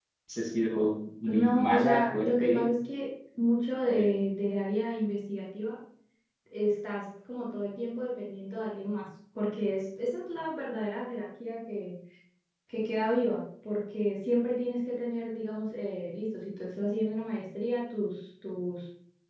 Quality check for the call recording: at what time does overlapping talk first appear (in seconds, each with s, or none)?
1.2 s